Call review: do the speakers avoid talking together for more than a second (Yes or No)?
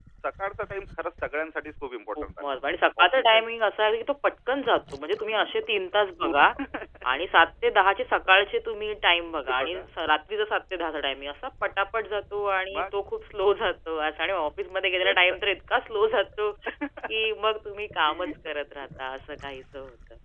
Yes